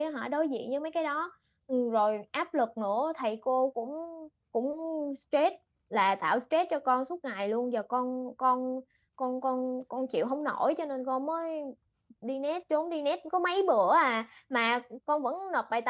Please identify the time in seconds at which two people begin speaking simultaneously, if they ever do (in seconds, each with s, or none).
none